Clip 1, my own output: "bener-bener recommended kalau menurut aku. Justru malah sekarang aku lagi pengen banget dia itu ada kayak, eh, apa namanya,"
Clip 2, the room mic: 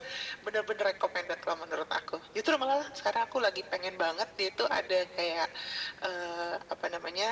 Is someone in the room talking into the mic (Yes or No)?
No